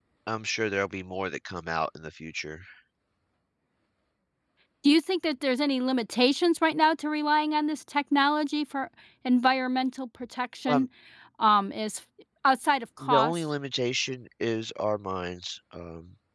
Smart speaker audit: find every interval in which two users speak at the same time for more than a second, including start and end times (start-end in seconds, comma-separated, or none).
none